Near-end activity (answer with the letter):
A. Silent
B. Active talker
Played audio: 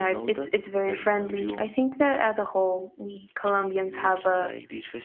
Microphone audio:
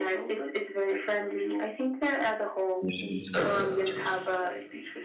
B